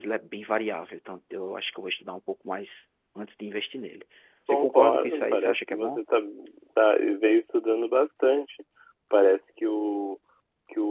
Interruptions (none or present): present